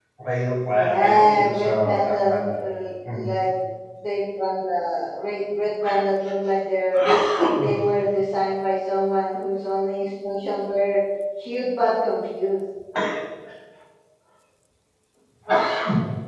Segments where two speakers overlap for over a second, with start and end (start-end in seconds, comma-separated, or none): 0.7-2.6